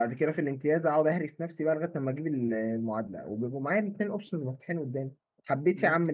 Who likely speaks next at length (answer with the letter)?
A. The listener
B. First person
B